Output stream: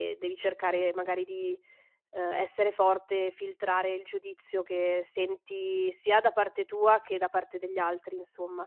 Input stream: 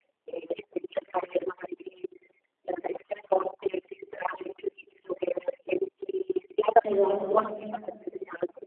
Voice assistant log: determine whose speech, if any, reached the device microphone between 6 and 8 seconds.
both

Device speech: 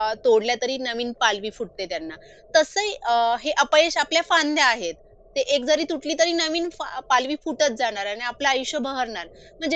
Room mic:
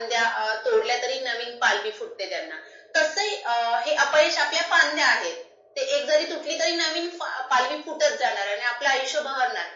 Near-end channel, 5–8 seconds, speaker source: echo only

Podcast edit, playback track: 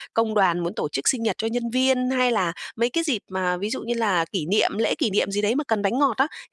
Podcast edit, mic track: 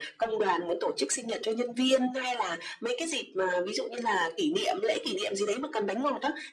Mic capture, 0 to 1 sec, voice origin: echo only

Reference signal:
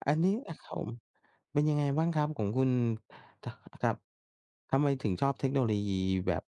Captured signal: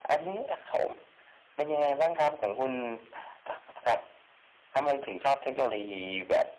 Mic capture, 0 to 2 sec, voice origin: echo only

